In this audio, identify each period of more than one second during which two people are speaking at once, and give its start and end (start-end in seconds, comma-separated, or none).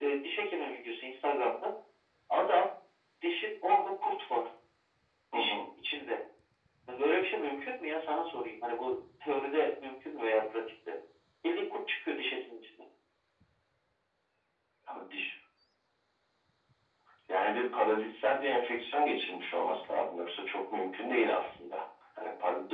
none